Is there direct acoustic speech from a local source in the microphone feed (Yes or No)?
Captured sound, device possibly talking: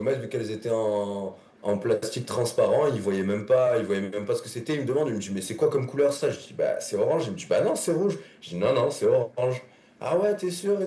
No